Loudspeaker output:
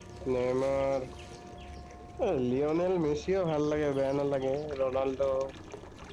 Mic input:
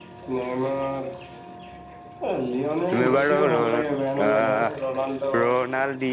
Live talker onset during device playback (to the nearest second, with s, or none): 3 s